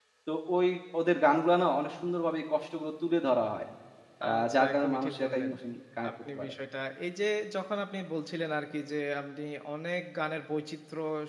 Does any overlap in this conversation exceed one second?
Yes, from 4.3 s

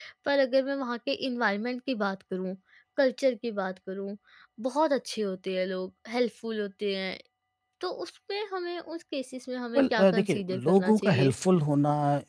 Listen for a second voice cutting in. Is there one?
Yes, from 9.8 s

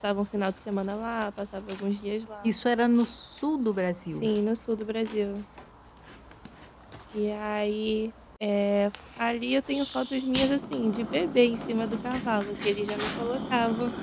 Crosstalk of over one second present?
No

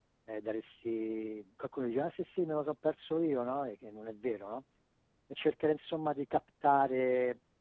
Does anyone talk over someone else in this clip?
No

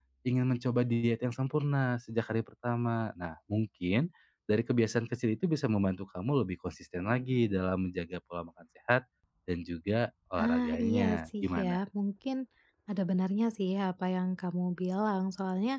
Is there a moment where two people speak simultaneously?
Yes, from 10.4 s

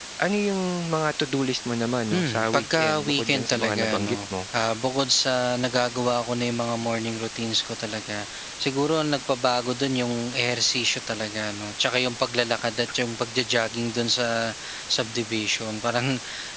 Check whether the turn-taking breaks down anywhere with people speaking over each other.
Yes, from 2.1 s

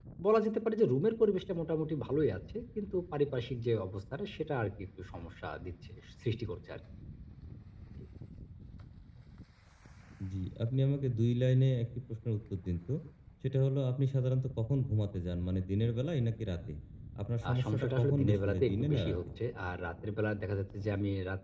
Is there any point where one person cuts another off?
Yes, from 17.5 s

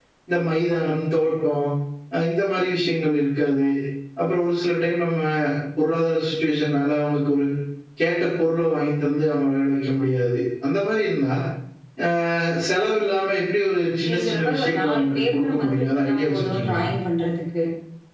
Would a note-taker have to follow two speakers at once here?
Yes, from 14.0 s

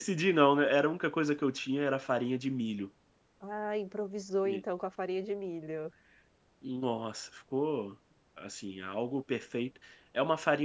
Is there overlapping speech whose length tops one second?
No

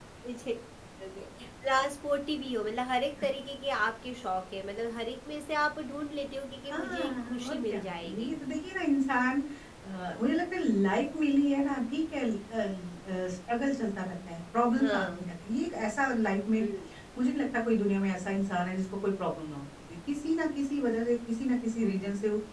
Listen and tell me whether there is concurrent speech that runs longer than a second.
Yes, from 6.7 s

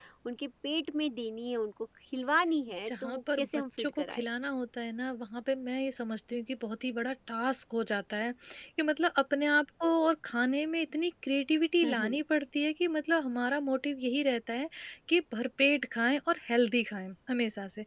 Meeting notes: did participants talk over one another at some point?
Yes, from 2.9 s

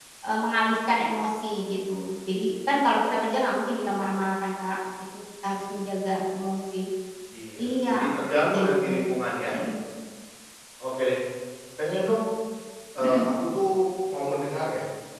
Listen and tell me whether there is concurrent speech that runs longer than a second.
Yes, from 7.6 s

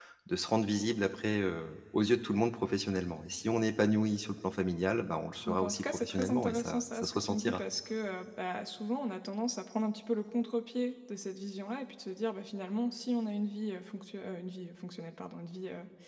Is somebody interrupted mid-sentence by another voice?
Yes, from 5.5 s

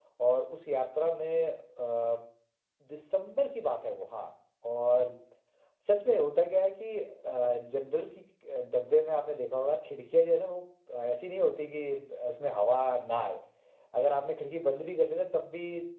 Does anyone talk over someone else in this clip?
No

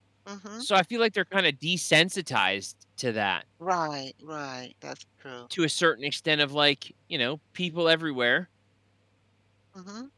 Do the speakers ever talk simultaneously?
No

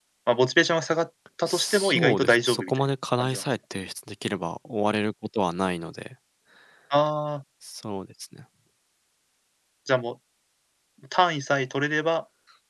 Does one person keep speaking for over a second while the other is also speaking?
Yes, from 1.5 s

